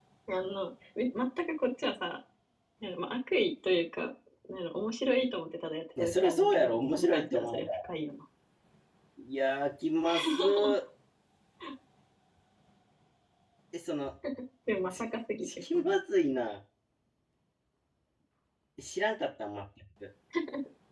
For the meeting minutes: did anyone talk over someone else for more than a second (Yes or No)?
Yes